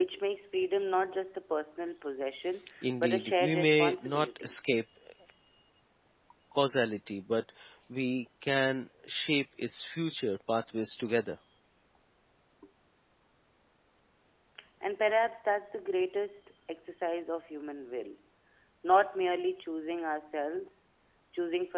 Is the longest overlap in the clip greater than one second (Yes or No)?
Yes